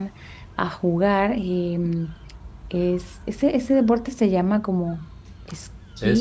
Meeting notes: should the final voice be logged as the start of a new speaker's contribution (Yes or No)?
Yes